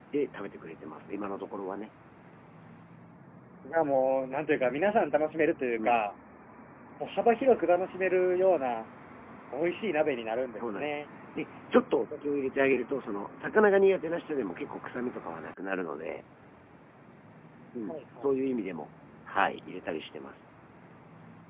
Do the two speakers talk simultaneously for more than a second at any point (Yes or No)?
No